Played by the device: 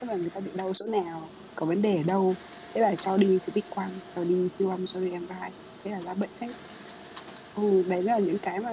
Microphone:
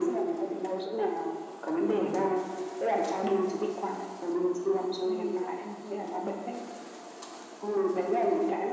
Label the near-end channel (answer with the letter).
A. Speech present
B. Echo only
A